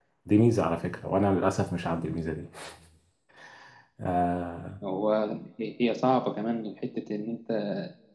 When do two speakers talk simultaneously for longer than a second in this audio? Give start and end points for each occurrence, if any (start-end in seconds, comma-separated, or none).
none